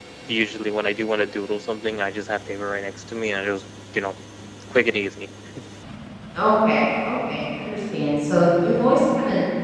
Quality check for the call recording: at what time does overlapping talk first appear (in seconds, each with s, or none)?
none